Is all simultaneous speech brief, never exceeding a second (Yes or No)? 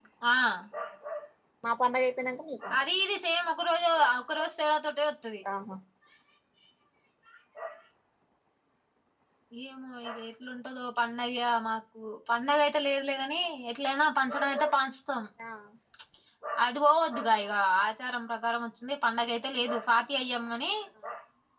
Yes